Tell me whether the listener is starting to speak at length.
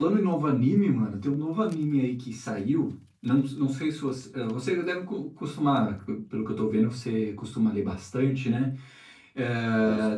No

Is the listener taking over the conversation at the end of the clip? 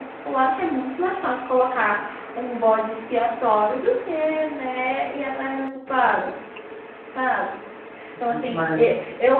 No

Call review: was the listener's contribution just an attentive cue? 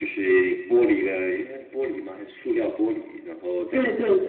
No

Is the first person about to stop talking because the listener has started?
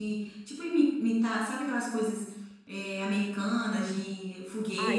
Yes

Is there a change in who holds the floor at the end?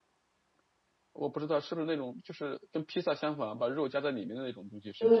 Yes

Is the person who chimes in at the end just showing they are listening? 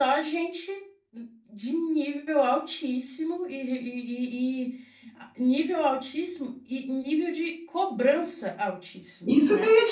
No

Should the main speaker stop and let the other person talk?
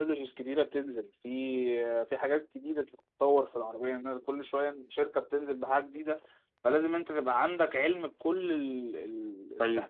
Yes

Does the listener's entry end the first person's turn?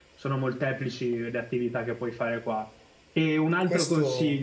No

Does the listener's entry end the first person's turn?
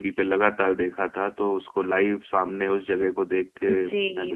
Yes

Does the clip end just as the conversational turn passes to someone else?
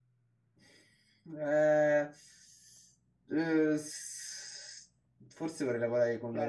Yes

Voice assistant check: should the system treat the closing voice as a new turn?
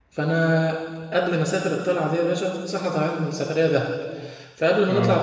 No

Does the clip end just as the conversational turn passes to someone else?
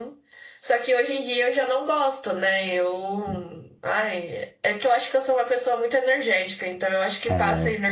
Yes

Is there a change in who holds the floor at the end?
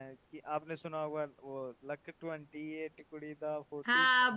Yes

